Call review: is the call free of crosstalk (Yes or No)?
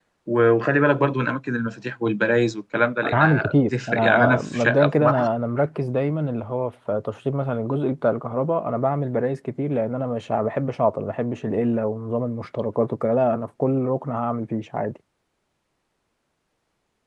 No